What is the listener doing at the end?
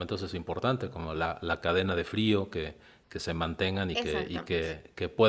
listening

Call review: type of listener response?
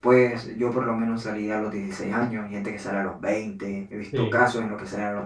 listening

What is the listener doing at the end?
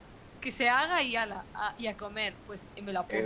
taking over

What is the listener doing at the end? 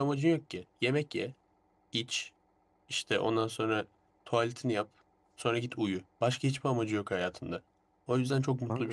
listening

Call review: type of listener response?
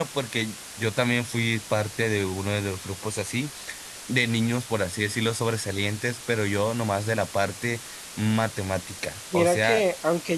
taking over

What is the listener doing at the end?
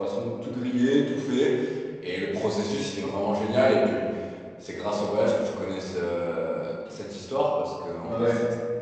listening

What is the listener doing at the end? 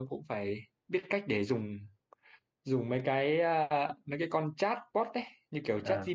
listening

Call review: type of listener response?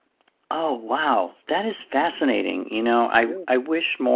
listening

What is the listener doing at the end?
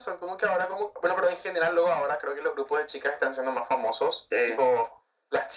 listening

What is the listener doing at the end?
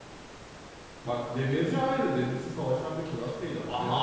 listening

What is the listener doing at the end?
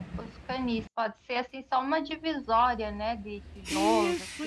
taking over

